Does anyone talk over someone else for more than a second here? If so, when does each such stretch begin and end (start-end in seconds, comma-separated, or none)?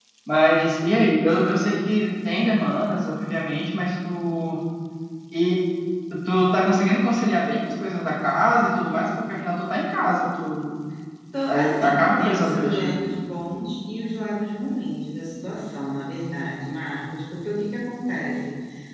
11.5-12.9